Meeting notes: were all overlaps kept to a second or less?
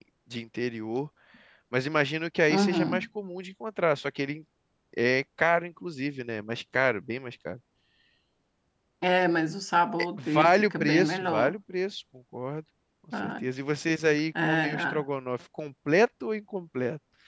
No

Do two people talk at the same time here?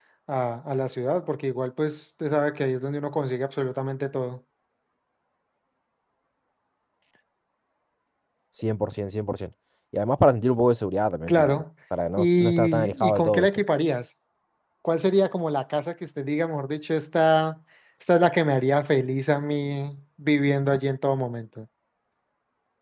Yes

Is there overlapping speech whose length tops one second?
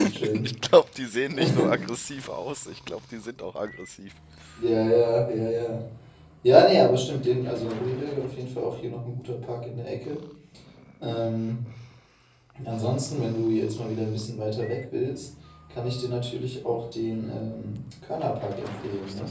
No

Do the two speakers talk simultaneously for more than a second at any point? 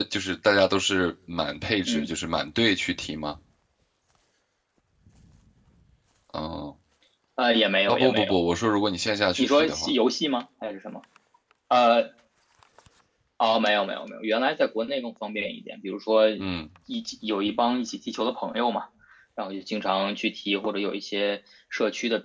No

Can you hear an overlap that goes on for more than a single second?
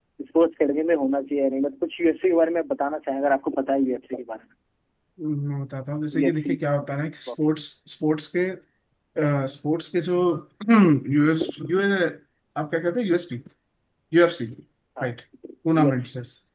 No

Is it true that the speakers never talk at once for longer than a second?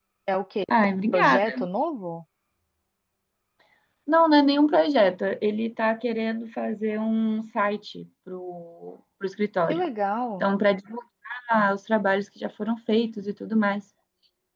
Yes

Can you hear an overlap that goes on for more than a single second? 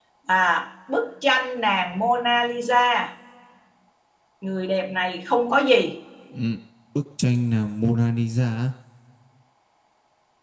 No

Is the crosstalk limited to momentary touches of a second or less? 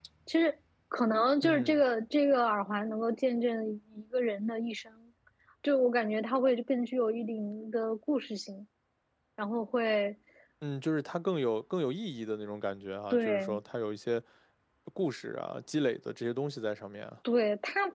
Yes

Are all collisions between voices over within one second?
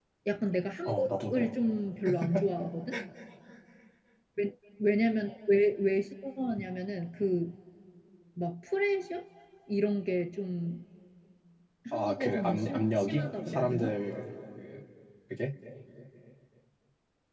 No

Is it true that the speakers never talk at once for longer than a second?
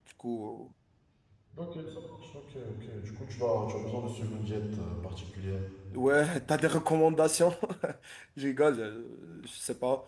Yes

